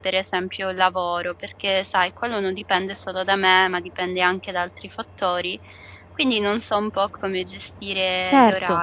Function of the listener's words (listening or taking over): taking over